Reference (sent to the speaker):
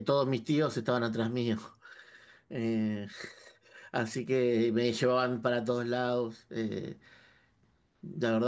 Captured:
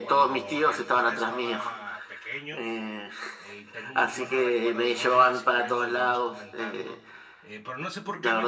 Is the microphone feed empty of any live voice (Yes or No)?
No